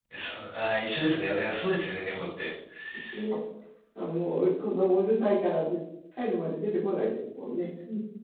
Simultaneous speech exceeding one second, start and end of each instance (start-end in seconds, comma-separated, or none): none